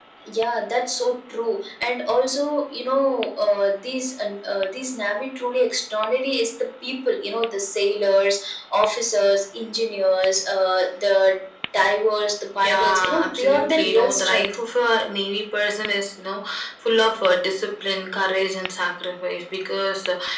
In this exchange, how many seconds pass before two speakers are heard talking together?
12.5 s

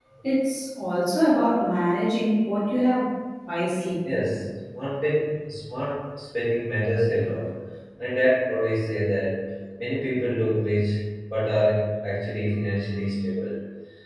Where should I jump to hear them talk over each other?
none

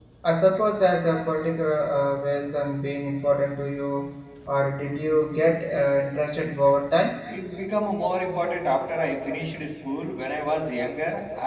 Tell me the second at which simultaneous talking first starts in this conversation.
none

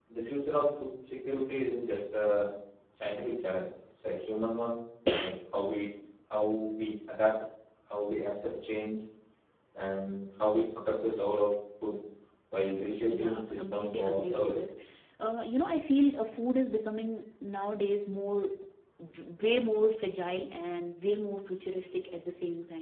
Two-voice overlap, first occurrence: 13.1 s

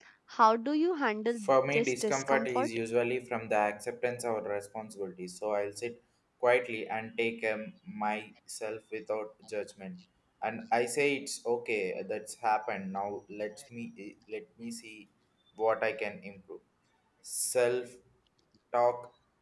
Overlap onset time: 1.4 s

